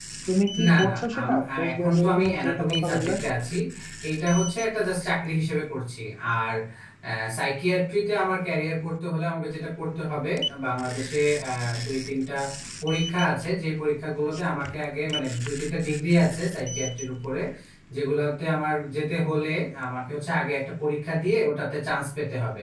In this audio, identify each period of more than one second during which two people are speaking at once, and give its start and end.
0.7-3.1

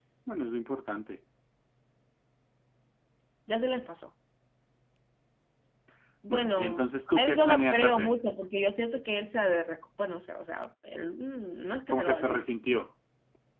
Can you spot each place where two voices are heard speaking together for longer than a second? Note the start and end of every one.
6.3-8.1

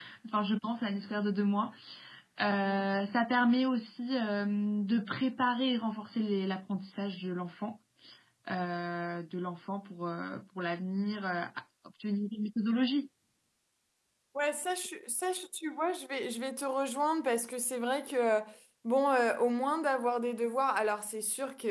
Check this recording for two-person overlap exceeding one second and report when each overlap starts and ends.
none

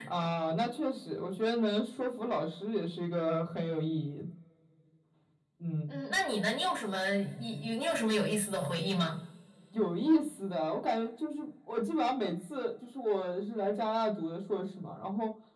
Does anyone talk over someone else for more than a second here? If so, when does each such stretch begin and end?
none

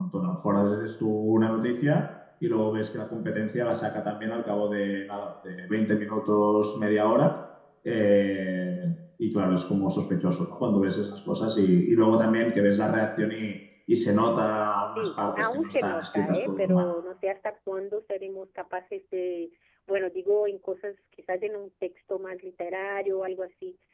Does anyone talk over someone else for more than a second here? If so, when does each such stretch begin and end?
14.9-16.9

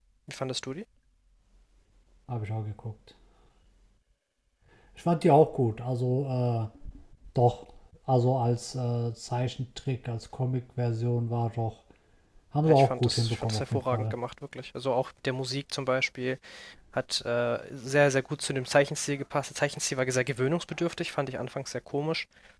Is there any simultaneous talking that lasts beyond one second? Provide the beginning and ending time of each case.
12.7-14.1

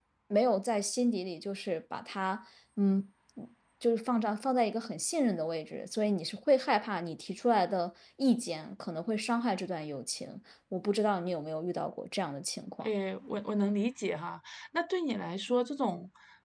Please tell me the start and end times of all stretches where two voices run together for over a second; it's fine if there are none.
none

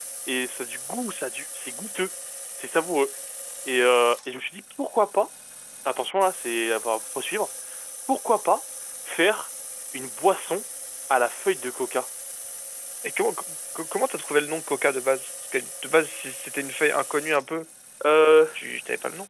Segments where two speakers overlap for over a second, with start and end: none

